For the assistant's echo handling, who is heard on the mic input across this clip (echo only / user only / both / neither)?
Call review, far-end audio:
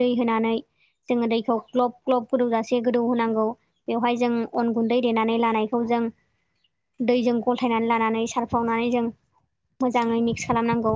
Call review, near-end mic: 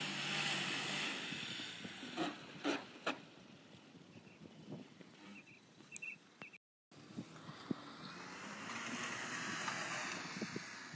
neither